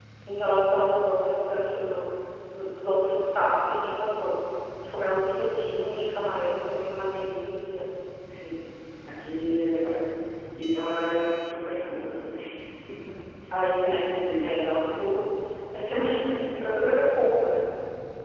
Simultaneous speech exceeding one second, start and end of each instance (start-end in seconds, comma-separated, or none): none